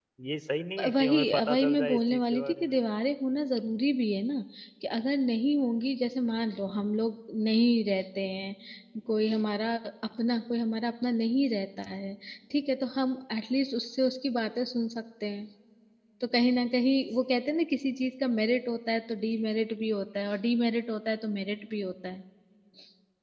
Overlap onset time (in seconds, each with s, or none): 0.9 s